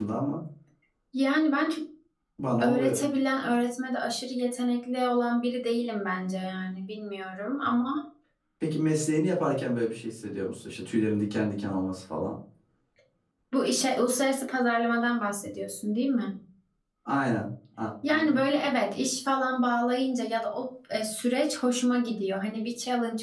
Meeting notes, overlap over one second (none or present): none